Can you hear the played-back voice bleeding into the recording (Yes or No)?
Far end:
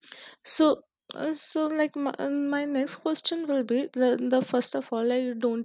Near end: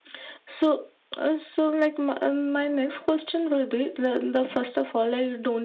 Yes